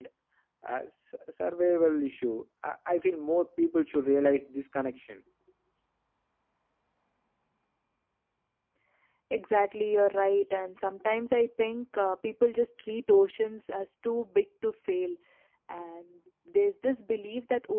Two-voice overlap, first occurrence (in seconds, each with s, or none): none